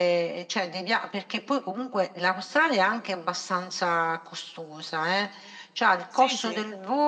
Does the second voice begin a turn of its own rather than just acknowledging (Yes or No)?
No